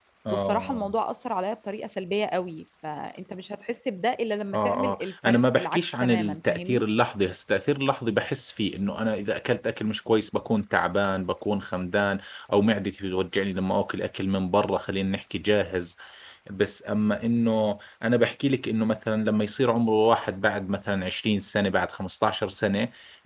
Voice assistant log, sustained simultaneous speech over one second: present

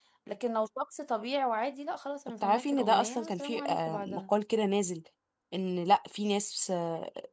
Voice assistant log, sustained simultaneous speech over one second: present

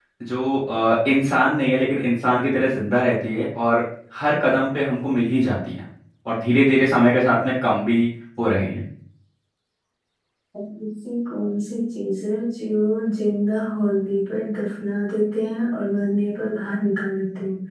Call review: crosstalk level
none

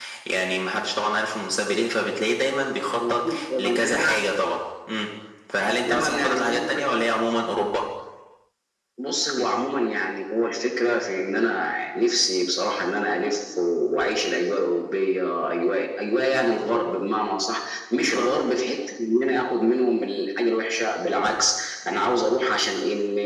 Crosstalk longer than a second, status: present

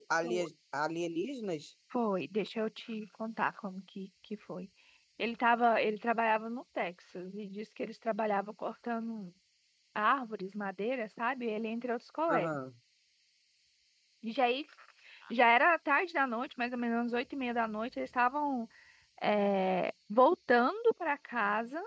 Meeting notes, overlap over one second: none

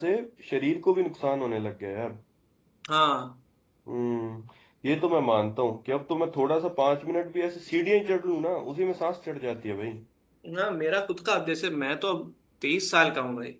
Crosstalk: none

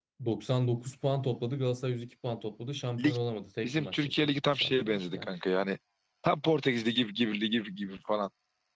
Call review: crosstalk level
present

